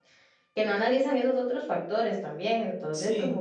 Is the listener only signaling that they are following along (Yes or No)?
Yes